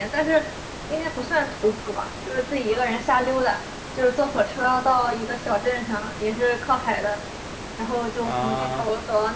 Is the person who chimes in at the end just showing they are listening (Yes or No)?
Yes